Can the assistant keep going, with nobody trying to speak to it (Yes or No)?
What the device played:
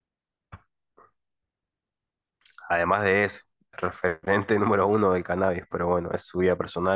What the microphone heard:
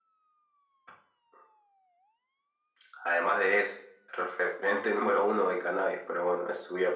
Yes